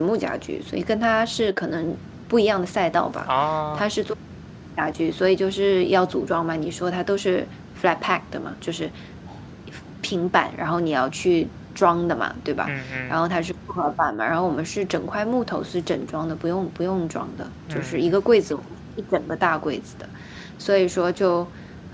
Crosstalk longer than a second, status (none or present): none